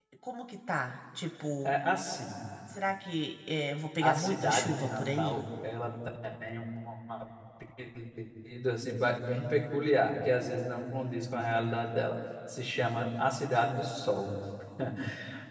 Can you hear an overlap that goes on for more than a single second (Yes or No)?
Yes